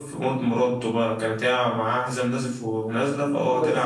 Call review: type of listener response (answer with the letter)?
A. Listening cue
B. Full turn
B